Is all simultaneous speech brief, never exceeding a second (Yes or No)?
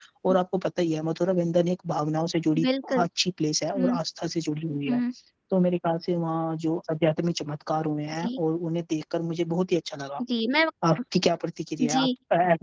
Yes